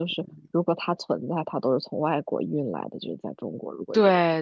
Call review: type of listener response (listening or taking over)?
taking over